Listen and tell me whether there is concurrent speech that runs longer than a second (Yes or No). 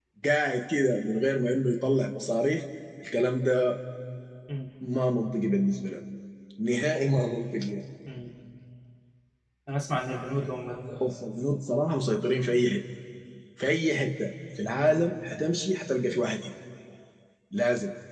No